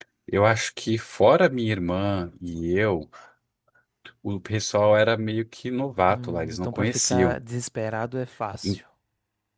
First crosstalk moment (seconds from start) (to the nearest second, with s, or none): 6 s